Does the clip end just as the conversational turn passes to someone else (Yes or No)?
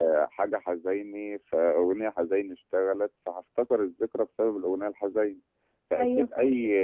No